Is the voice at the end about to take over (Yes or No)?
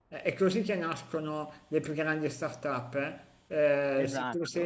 No